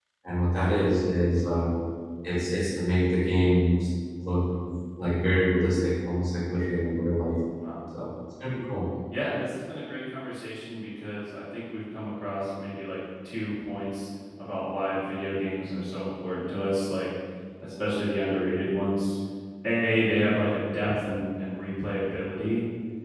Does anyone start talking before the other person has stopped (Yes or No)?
No